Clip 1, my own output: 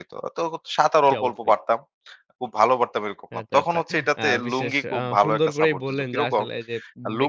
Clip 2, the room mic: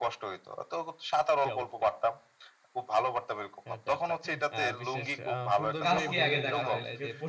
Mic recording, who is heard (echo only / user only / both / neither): both